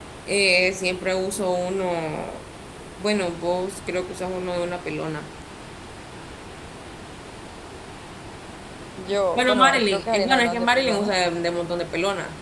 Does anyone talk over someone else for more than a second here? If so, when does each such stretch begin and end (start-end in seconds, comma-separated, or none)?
9.4-11.1